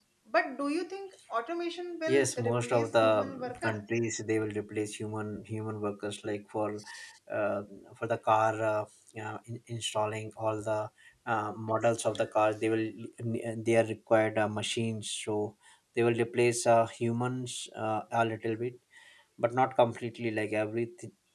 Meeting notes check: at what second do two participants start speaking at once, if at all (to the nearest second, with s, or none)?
2 s